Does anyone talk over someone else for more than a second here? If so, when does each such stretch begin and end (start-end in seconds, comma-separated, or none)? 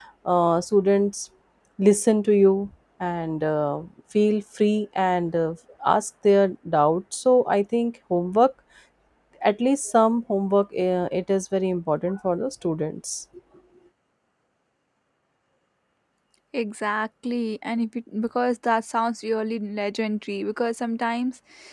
none